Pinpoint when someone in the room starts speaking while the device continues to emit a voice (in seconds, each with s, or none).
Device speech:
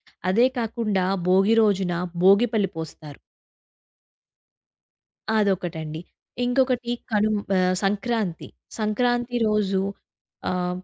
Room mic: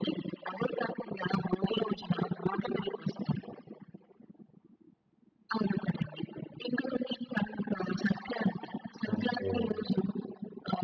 9.1 s